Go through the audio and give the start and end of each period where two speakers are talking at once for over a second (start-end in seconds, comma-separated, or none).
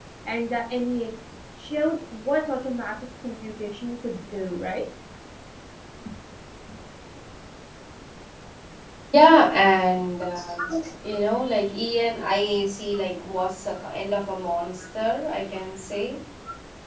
none